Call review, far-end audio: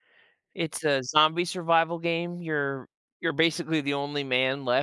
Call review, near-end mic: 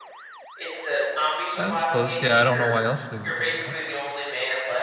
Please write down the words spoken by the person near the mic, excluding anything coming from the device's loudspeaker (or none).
I suppose. Yeah. I don't know why else they would do that.